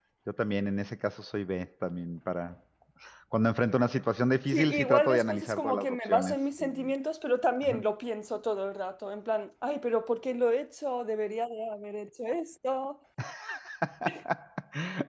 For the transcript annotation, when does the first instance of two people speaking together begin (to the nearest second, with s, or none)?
5 s